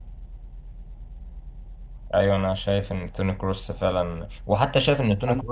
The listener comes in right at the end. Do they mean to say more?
No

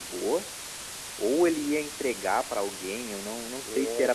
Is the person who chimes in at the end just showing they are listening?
Yes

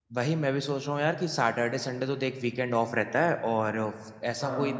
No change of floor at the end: Yes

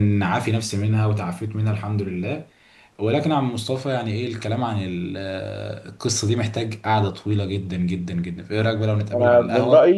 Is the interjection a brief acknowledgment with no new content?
No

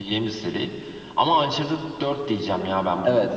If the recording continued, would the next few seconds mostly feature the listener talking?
Yes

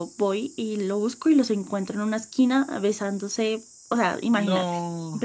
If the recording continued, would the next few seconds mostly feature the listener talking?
No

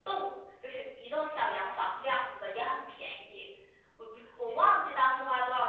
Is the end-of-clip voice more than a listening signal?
No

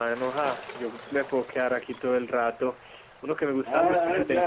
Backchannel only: No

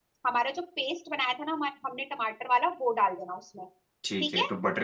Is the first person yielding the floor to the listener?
Yes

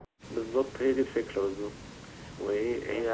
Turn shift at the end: No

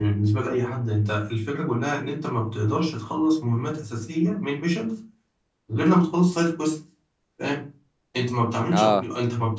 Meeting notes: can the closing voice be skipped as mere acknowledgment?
Yes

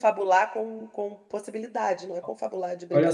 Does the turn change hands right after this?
Yes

